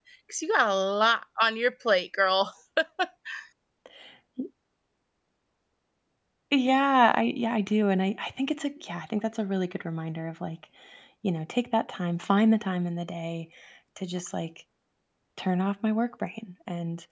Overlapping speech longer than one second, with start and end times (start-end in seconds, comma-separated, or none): none